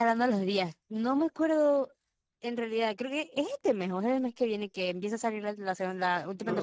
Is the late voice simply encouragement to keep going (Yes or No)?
No